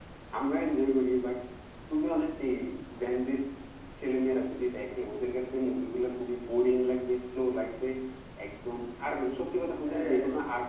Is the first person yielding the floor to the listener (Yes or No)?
No